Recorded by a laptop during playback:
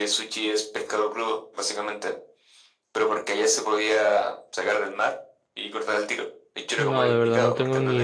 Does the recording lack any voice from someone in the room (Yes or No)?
No